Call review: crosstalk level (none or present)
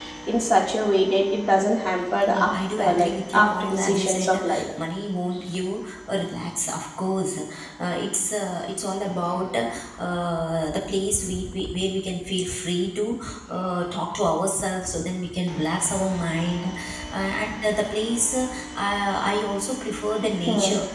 present